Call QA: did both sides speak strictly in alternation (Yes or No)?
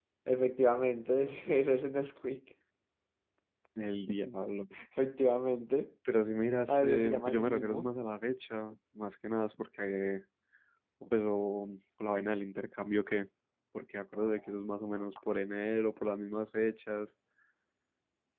No